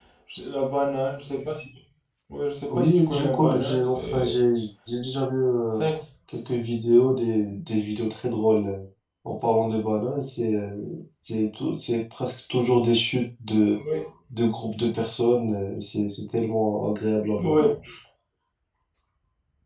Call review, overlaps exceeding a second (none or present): present